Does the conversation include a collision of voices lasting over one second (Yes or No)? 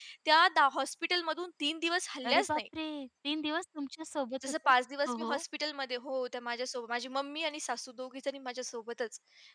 No